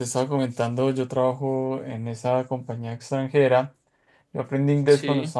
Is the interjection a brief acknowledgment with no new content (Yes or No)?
Yes